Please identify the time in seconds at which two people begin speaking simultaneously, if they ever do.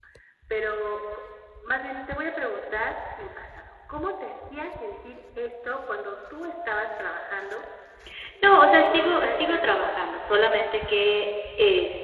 8.4 s

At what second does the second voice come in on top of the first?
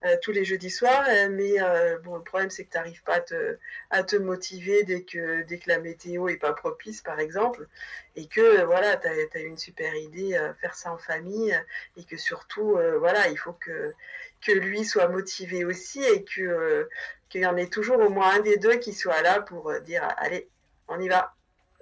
none

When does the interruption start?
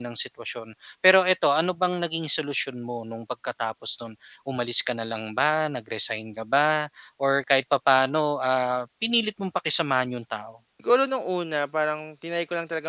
none

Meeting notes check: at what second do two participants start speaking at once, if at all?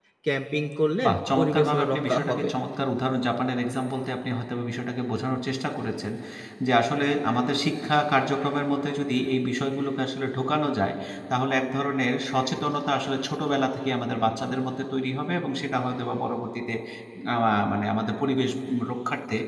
1.0 s

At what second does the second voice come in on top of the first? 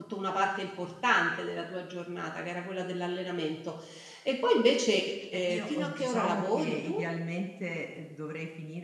5.5 s

